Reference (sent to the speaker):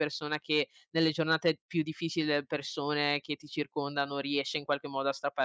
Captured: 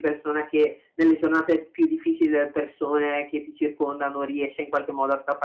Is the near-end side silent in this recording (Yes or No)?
Yes